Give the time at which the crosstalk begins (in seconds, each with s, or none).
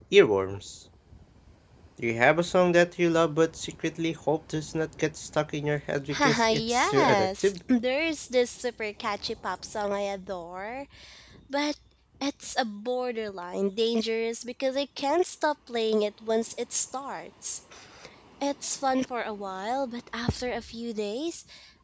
6.1 s